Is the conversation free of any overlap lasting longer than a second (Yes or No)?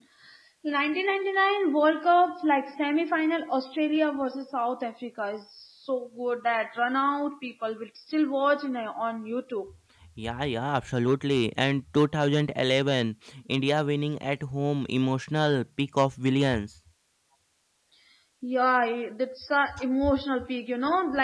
Yes